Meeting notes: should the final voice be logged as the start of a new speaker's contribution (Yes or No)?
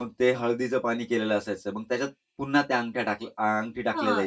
Yes